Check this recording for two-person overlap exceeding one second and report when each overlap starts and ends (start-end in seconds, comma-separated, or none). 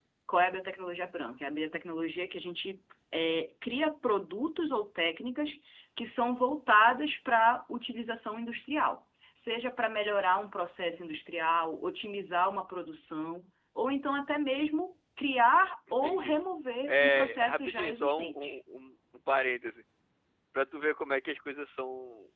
16.9-18.6